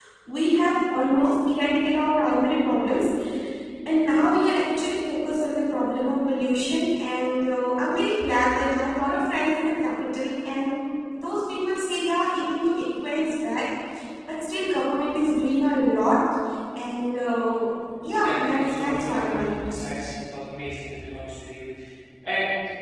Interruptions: present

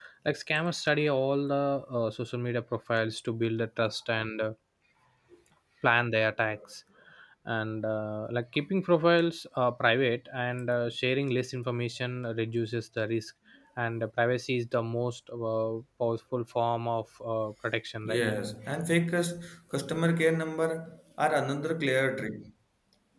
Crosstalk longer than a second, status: none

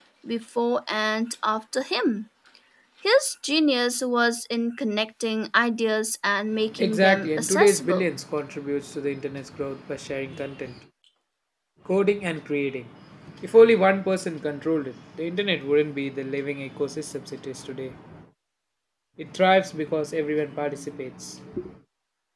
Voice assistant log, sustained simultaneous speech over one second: present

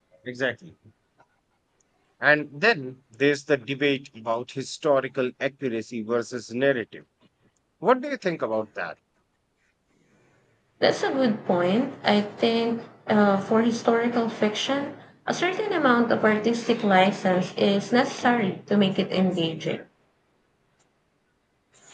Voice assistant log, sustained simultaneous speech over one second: none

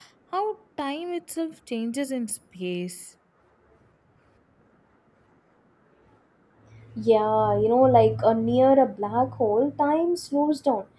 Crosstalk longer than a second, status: none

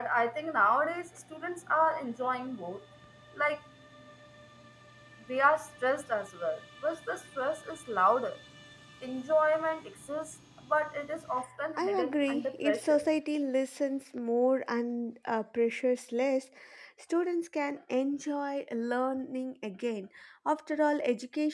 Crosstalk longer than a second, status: present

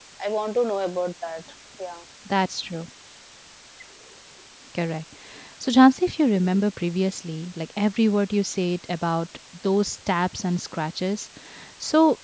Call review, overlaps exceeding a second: none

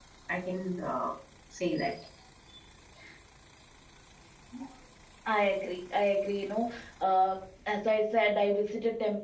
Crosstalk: none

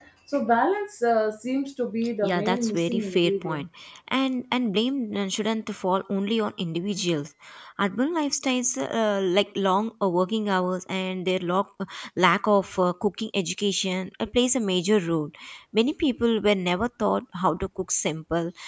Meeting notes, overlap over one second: present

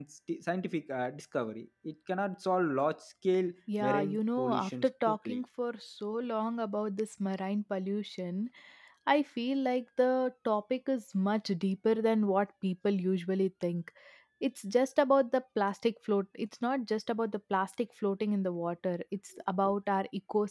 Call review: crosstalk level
present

